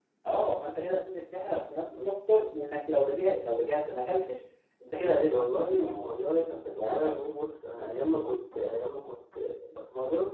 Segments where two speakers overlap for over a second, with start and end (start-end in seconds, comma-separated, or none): 5.0-7.2